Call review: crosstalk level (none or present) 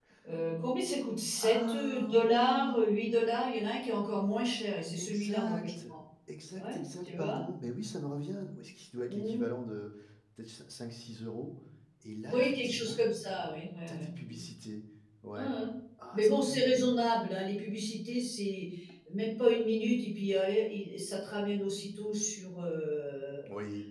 present